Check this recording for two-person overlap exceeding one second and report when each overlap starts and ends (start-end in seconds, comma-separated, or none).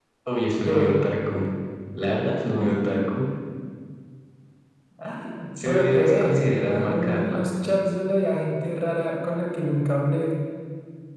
5.6-7.4